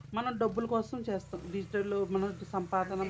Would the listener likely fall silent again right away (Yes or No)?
No